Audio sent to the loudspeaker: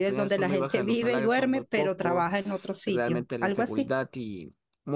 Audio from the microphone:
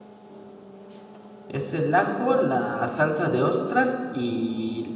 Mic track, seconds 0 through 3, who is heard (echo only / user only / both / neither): user only